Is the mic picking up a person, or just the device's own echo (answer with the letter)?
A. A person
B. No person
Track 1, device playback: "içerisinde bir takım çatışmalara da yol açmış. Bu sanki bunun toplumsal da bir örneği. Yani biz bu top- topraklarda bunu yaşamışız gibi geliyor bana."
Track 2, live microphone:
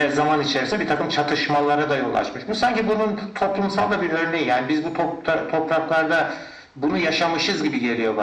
B